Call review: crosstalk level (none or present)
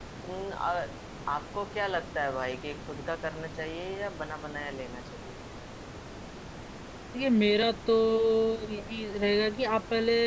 none